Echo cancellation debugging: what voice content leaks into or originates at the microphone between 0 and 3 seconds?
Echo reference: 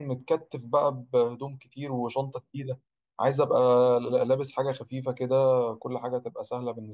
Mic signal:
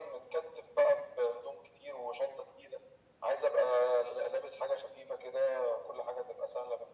echo only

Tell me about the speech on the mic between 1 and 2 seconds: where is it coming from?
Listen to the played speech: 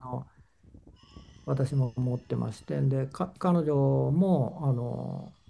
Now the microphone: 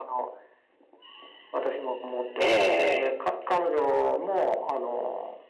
echo only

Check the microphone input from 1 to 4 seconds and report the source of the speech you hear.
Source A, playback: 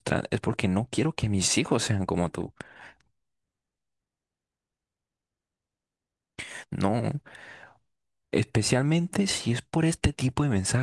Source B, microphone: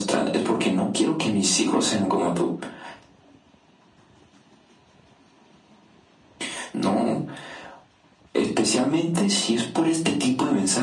echo only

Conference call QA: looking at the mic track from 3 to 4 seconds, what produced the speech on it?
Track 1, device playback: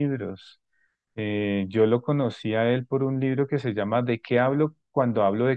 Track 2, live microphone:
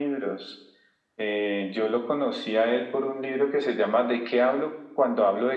echo only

